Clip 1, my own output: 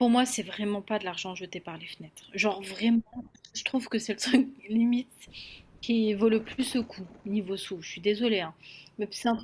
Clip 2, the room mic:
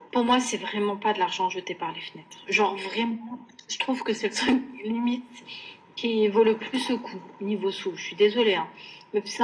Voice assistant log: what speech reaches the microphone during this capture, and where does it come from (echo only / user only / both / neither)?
echo only